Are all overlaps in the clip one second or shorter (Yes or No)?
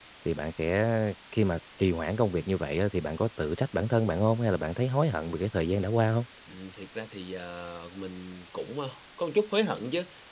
Yes